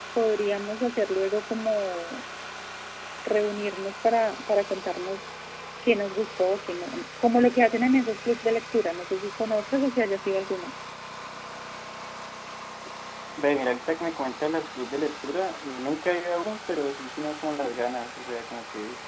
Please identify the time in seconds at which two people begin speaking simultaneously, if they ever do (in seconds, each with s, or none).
none